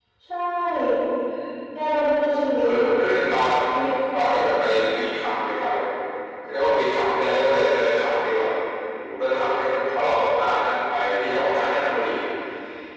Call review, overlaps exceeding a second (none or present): none